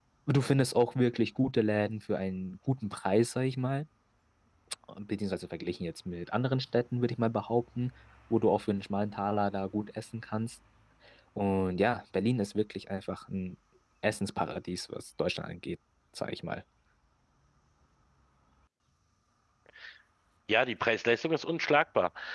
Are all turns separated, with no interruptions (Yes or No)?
Yes